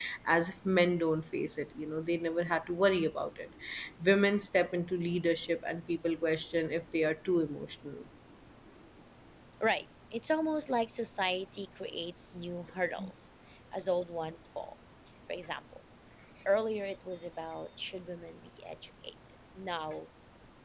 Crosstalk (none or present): none